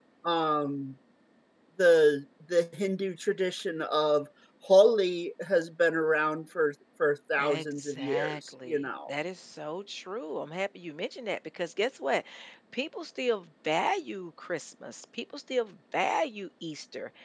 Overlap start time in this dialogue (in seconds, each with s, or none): 7.4 s